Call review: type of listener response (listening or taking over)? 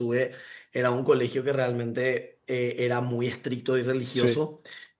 listening